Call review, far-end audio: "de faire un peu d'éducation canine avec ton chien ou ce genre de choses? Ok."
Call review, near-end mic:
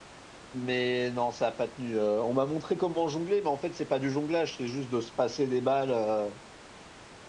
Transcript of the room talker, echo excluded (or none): Mais non, ça n'a pas tenu. Euh, on m'a montré comment jongler, mais en fait, c'est pas du jonglage, c'est juste de se passer des balles. euh.